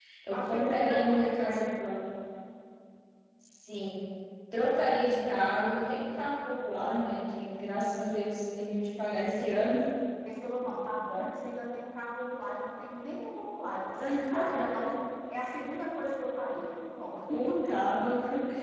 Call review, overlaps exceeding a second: present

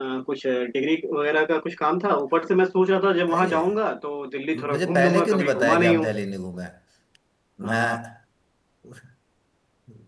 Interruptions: present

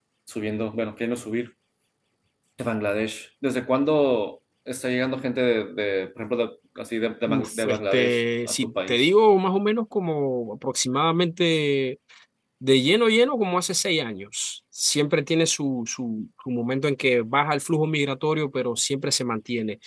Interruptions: present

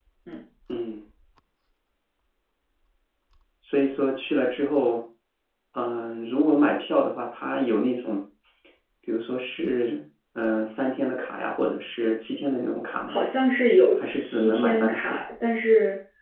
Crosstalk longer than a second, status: present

